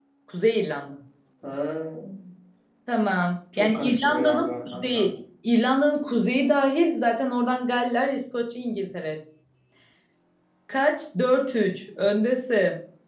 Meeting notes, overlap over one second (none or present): present